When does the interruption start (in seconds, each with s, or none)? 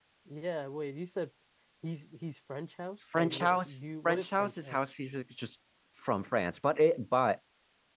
3.1 s